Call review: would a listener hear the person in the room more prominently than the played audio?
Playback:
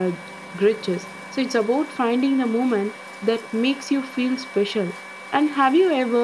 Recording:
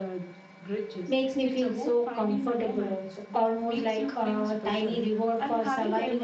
Yes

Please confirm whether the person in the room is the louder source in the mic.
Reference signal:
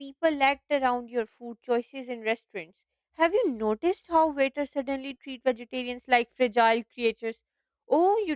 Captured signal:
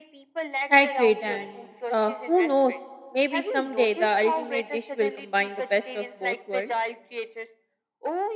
Yes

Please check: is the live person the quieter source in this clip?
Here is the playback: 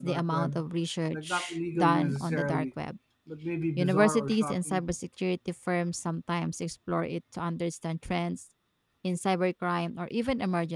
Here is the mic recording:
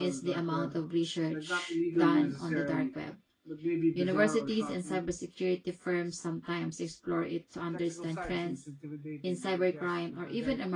Yes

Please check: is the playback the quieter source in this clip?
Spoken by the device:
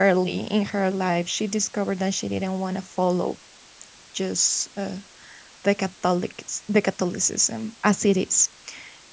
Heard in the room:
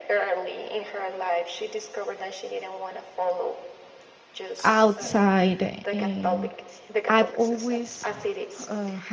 Yes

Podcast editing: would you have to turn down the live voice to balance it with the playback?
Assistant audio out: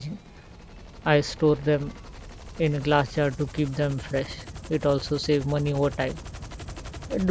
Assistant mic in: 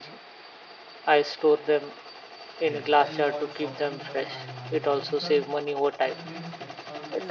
No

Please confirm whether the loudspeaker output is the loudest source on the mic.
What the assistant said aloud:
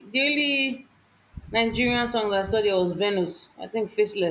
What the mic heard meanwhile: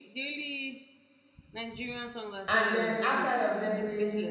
No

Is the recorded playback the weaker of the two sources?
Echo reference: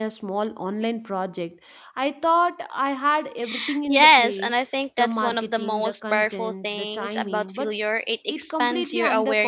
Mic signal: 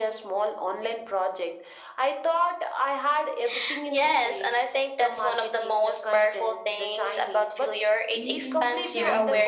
No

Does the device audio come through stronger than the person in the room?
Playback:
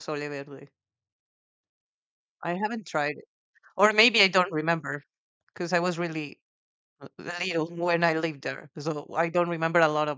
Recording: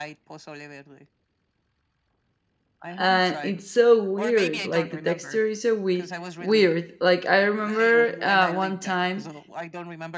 No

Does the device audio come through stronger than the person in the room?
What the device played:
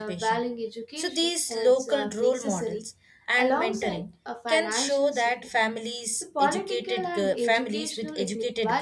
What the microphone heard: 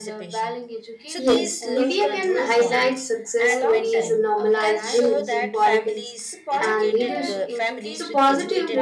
No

